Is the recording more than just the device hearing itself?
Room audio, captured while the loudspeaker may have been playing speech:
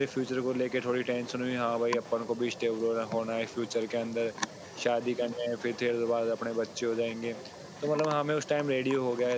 Yes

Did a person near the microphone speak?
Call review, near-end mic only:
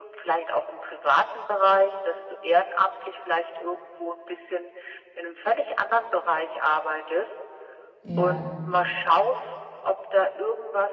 Yes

